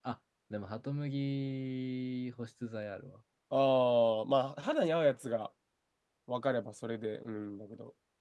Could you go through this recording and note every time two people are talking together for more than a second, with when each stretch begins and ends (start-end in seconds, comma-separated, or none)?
none